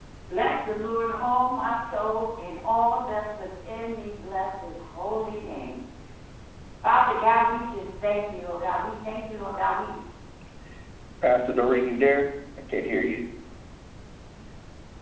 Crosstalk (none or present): none